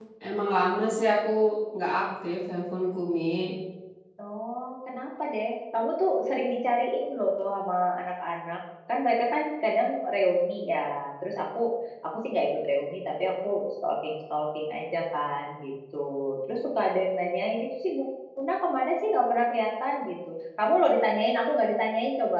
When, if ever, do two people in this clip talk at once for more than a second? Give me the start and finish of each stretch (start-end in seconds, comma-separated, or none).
none